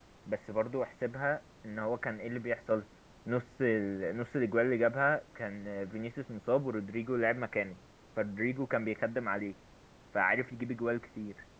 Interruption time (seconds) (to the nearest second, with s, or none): none